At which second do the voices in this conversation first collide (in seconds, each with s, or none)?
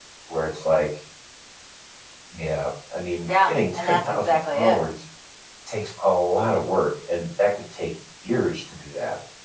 3.3 s